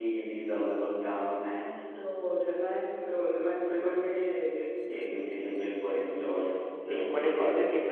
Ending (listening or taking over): taking over